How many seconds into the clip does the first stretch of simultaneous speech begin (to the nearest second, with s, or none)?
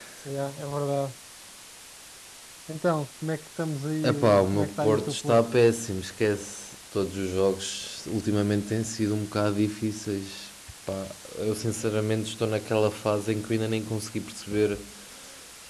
4 s